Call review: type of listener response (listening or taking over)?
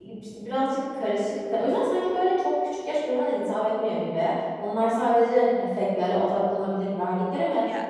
listening